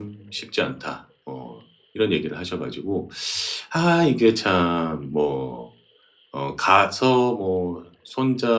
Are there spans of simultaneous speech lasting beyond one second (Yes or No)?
No